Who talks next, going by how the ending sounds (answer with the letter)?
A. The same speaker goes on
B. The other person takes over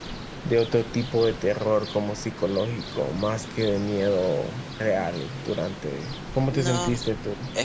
B